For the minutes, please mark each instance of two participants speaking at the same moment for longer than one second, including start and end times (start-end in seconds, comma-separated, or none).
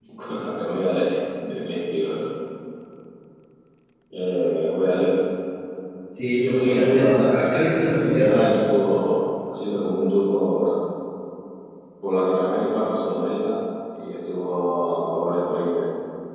6.5-8.4